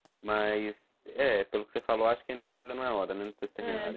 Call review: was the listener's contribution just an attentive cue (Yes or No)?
No